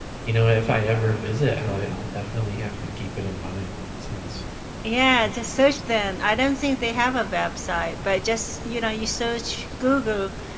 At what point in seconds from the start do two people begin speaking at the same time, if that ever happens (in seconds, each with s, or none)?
none